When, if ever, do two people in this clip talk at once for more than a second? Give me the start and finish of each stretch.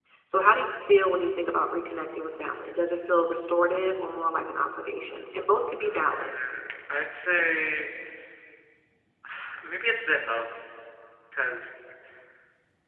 none

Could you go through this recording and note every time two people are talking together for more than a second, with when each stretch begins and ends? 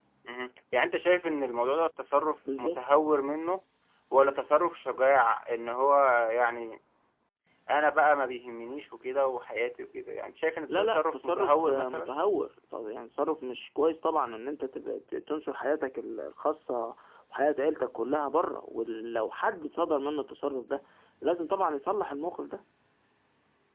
10.8-12.1

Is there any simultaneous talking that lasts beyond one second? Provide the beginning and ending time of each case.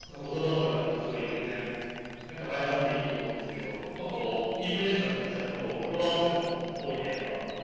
none

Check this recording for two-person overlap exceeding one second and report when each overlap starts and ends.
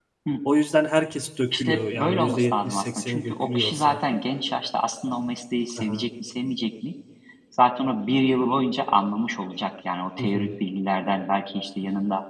1.5-4.0

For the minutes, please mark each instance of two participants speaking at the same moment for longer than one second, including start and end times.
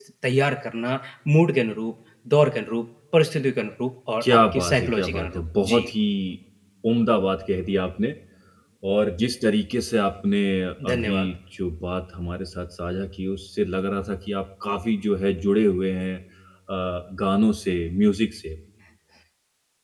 4.2-5.8

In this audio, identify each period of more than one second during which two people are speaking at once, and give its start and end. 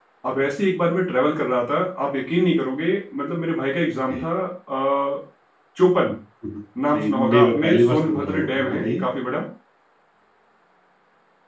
6.9-9.1

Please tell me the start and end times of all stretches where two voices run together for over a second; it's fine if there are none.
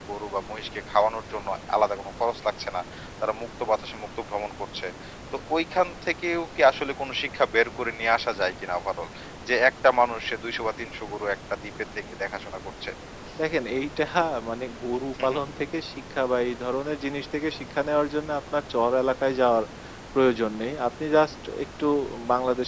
none

